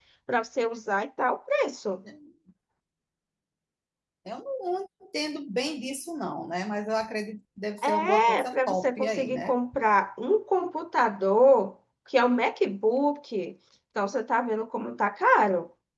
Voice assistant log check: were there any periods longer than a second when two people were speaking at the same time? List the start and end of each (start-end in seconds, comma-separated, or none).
7.8-9.6